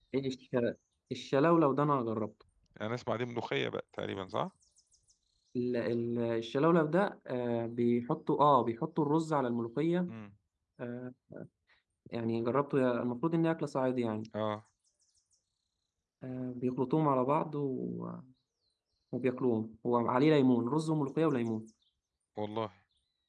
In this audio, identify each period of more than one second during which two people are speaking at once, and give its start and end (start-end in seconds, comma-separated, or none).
none